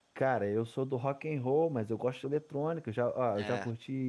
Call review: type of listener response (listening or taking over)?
listening